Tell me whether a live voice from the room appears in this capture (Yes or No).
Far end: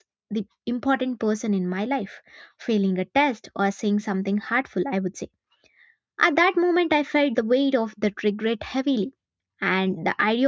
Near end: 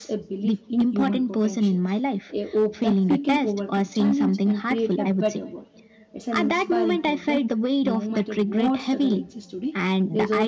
Yes